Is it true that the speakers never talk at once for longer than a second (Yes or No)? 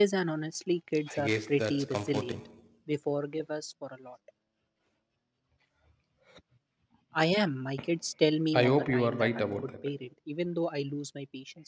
No